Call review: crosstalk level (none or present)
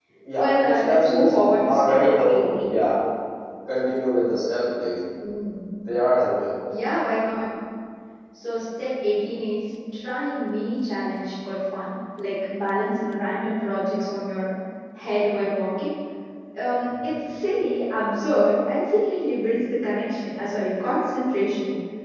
present